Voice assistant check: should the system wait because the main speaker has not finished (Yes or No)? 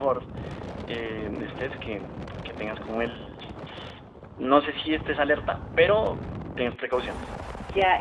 No